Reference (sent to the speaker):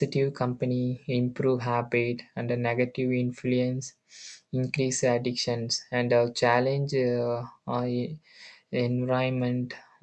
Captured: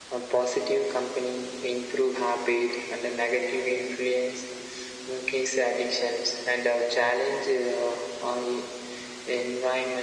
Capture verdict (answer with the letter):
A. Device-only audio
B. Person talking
A